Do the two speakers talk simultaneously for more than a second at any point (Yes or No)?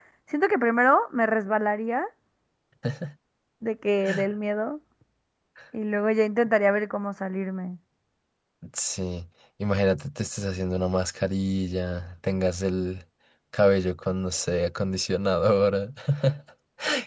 No